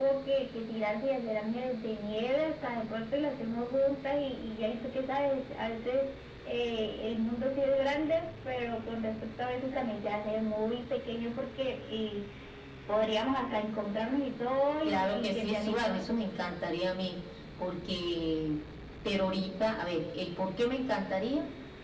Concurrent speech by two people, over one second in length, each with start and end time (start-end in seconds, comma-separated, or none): 14.8-16.1